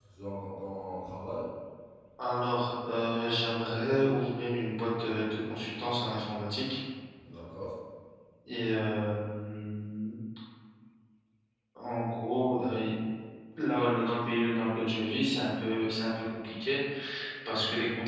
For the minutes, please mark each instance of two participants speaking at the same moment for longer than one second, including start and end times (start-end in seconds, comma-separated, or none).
none